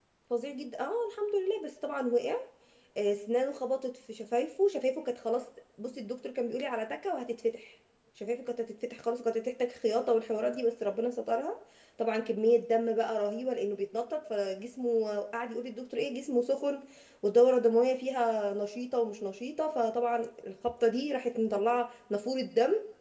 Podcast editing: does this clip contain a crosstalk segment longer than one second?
No

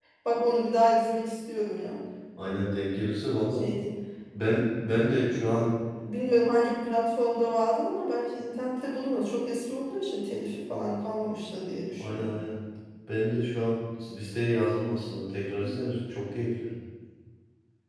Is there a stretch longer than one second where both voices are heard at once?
No

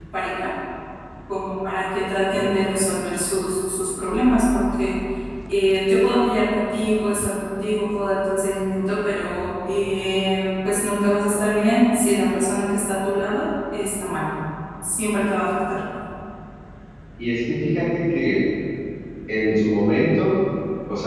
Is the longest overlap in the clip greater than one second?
No

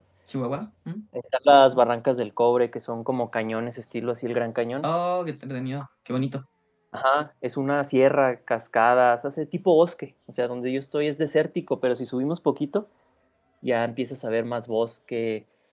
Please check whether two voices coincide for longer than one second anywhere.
No

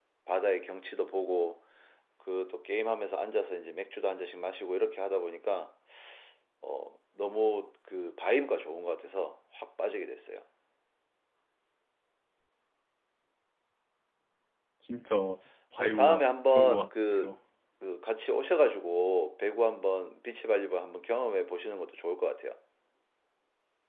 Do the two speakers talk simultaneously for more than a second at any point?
Yes, from 15.8 s

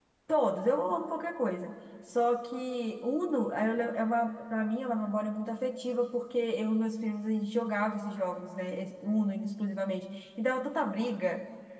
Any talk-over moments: No

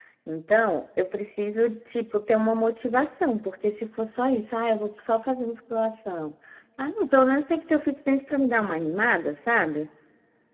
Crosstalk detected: No

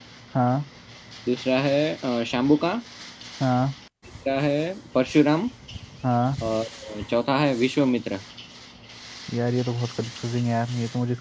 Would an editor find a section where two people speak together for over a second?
No

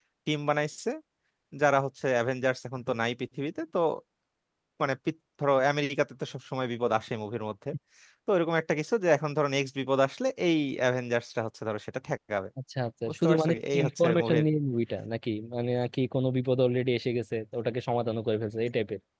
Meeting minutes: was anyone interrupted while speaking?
Yes, from 13.1 s

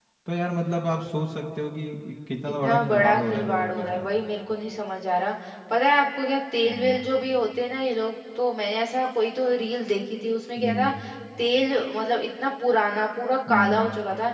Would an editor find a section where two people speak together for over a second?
Yes, from 2.6 s

